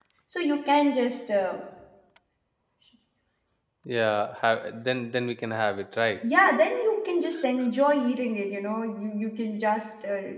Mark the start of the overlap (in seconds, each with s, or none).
none